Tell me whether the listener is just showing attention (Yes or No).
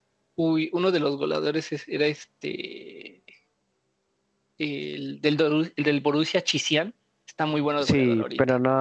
No